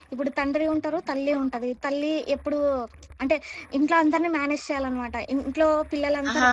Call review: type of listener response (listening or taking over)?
listening